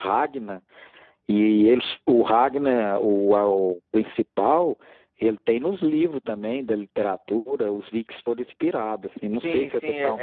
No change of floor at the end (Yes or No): No